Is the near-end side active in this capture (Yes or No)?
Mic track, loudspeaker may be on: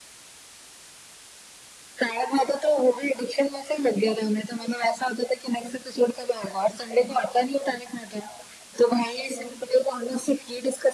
No